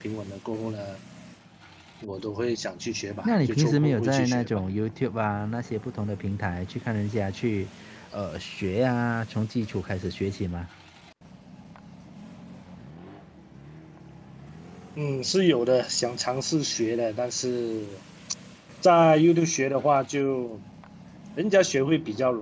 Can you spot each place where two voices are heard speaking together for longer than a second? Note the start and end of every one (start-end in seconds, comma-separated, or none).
3.2-4.6